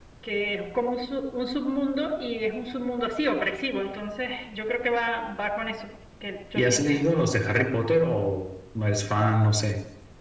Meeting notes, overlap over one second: none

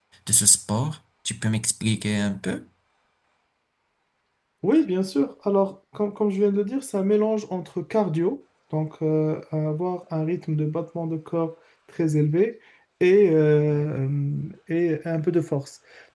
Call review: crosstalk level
none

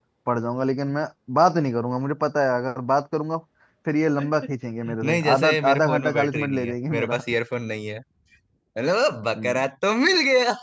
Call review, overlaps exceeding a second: present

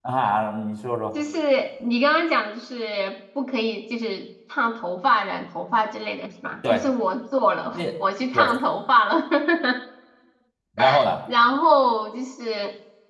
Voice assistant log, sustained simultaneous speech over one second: none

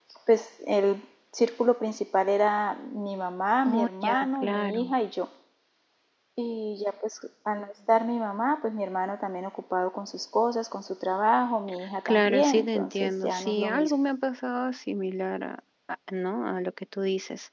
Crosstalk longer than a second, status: present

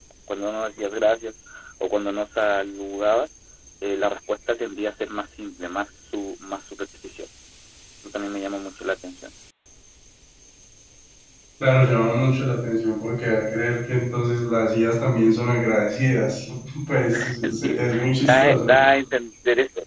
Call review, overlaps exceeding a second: present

